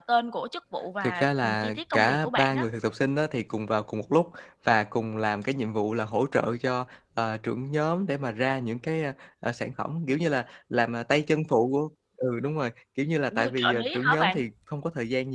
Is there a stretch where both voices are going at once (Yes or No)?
Yes